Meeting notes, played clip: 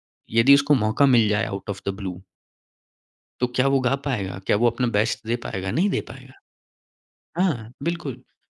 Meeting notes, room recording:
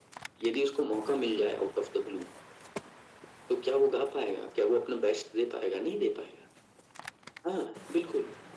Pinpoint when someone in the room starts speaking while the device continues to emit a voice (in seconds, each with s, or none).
none